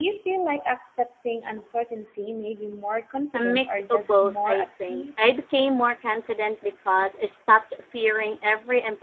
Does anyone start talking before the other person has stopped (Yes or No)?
Yes